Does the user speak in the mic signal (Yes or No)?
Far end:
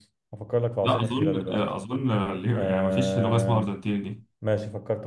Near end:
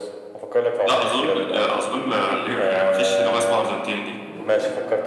No